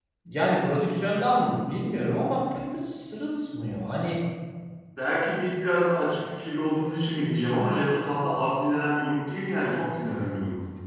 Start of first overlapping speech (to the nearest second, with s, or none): none